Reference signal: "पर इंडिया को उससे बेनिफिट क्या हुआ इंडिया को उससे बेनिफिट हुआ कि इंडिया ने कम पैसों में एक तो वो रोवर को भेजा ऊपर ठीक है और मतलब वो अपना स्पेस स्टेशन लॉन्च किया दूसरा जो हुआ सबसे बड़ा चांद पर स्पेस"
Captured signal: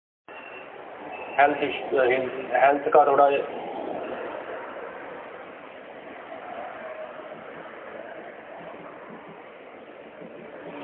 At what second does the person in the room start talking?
1.4 s

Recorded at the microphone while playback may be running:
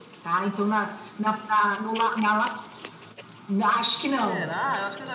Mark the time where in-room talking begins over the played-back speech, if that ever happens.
4.2 s

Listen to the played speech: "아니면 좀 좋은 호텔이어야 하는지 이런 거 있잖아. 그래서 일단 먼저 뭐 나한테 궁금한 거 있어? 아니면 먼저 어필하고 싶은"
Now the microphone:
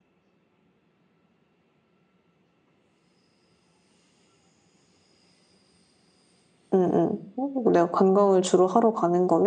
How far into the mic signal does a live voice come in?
6.7 s

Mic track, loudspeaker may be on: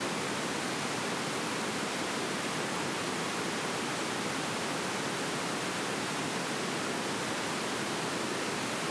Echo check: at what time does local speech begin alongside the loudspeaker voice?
none

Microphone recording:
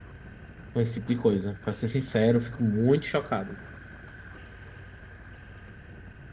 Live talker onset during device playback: 0.7 s

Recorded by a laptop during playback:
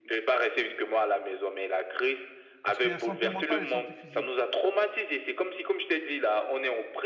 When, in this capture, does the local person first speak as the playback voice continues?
2.6 s

